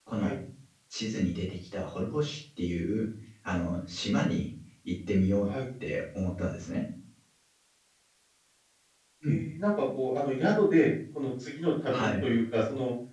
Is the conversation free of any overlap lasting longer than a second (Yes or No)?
Yes